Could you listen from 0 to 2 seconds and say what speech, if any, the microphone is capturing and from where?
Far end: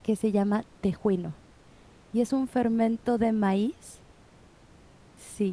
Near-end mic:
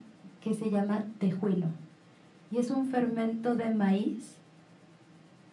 echo only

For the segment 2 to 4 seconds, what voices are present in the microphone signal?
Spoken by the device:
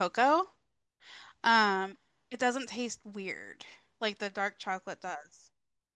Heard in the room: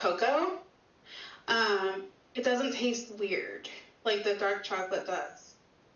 echo only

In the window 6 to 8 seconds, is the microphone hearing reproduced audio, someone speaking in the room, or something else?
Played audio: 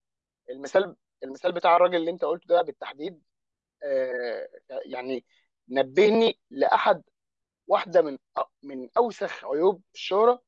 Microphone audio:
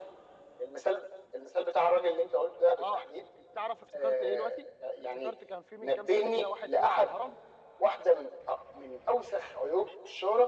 both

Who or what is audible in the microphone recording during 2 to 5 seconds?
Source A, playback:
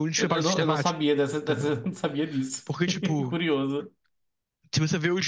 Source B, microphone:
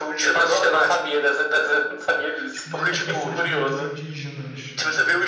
both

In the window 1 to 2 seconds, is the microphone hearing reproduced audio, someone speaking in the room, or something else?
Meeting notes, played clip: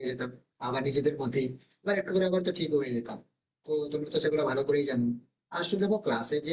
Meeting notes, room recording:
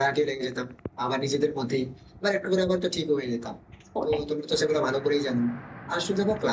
echo only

